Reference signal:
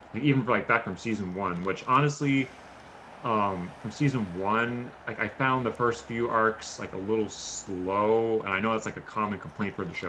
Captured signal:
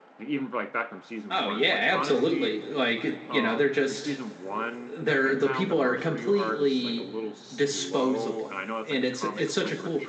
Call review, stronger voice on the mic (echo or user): user